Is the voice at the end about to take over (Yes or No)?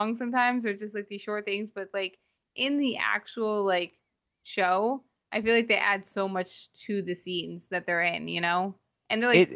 Yes